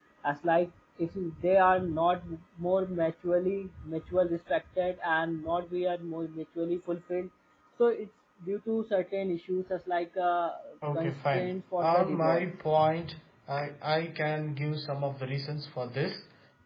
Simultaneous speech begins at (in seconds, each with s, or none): 10.9 s